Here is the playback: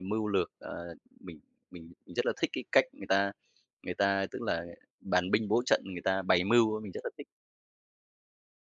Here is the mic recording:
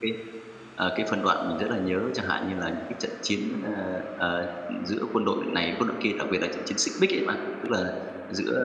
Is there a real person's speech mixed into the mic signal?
Yes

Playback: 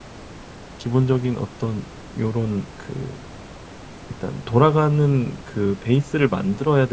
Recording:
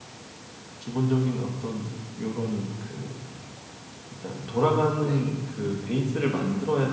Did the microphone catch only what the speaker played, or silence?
No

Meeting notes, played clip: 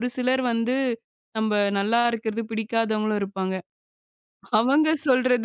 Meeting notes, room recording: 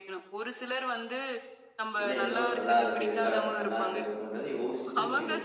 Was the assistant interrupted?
Yes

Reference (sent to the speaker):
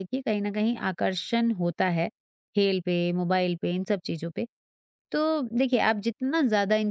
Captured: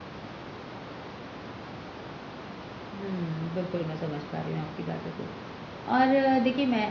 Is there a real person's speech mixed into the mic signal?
Yes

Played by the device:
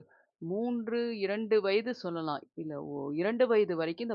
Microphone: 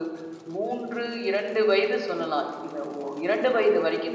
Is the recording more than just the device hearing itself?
No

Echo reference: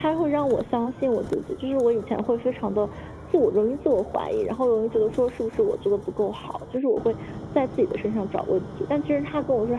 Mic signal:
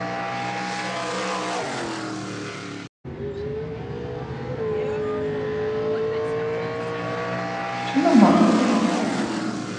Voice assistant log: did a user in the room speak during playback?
Yes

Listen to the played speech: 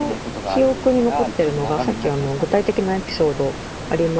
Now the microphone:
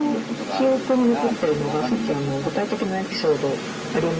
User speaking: No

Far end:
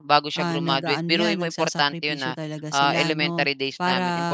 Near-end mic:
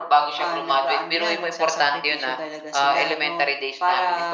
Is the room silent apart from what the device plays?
Yes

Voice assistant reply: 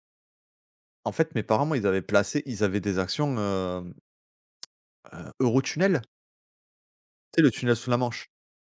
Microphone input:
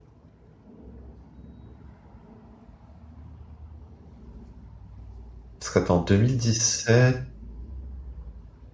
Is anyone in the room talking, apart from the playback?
Yes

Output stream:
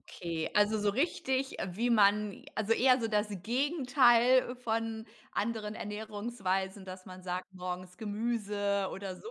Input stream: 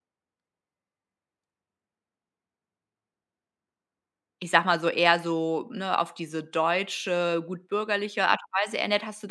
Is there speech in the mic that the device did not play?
Yes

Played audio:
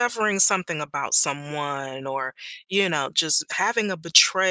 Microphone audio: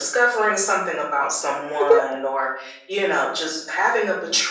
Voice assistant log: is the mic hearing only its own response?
No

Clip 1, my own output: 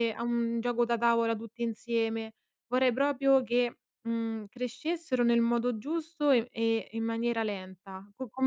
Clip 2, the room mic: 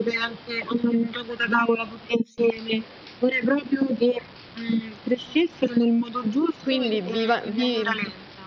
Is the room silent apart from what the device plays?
No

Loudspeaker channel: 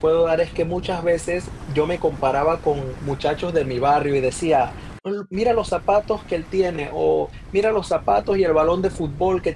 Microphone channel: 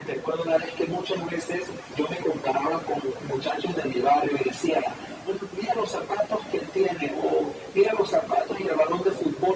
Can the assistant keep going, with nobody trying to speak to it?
Yes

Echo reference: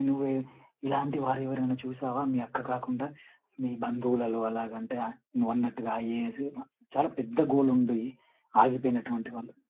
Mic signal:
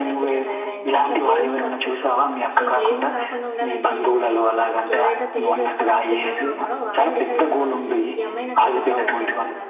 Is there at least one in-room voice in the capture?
Yes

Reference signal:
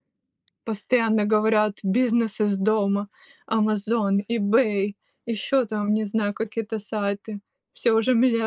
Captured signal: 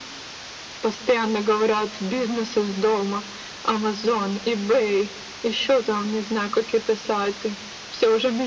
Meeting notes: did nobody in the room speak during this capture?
Yes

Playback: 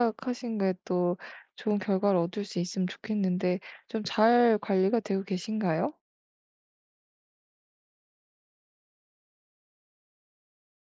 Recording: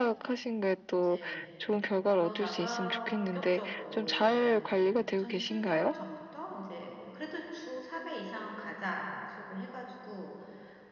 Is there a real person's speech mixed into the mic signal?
Yes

